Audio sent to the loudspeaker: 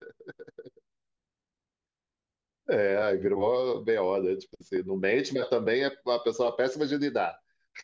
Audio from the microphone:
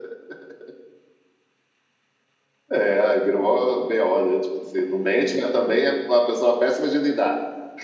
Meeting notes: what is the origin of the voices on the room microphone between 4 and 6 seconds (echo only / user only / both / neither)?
echo only